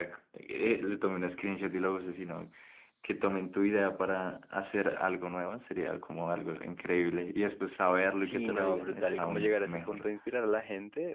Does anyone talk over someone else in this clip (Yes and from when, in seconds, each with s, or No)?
Yes, from 8.2 s